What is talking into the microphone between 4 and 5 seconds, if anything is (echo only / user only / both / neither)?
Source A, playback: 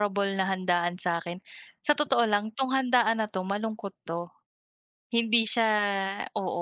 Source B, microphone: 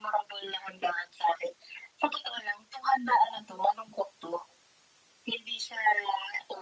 echo only